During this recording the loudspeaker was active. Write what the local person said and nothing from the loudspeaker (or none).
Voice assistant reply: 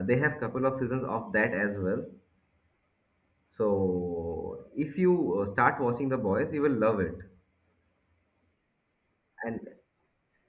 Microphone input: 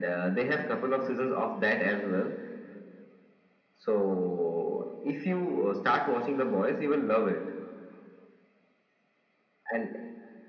none